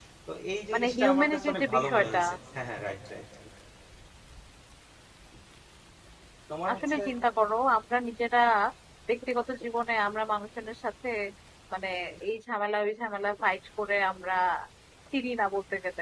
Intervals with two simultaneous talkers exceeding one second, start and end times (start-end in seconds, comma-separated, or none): 0.7-2.2